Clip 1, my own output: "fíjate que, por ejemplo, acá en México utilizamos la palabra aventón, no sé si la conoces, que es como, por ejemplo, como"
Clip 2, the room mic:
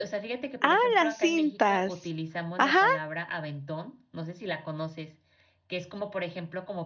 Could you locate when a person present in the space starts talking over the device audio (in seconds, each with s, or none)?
0.6 s